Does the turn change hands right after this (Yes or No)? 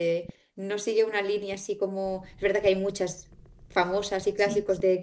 No